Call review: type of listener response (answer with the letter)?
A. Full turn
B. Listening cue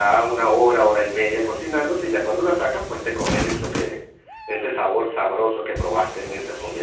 A